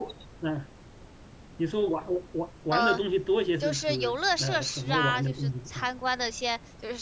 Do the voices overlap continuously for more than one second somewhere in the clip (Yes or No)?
Yes